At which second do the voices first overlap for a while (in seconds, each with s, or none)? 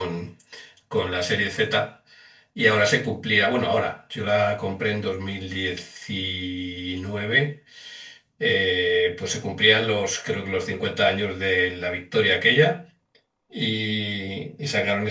none